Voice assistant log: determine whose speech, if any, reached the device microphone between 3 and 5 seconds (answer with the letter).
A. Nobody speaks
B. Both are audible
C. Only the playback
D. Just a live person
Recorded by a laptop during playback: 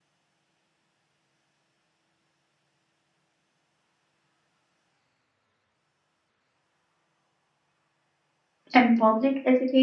A